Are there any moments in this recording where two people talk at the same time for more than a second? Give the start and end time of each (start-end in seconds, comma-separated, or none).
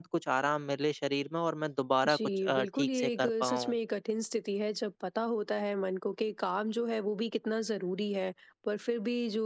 2.1-3.7